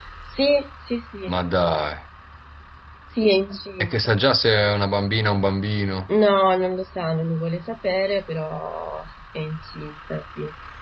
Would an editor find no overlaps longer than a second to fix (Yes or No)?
Yes